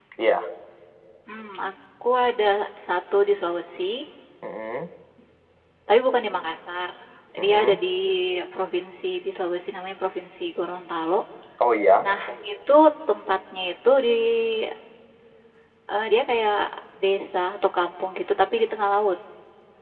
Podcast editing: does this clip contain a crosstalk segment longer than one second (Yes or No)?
No